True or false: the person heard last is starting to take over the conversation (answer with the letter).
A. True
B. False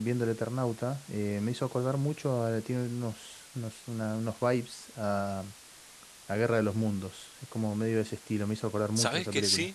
A